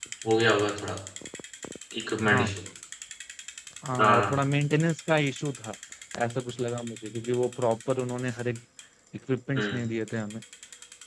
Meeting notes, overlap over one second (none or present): none